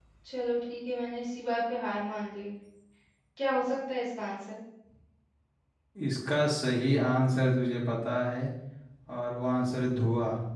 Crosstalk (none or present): none